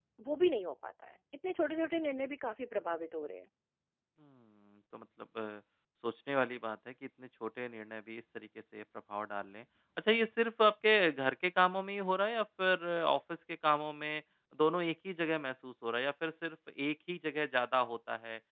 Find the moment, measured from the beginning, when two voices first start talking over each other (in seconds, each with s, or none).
none